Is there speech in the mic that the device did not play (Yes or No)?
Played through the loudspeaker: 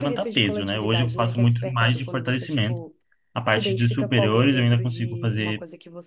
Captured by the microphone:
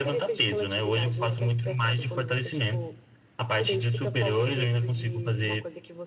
No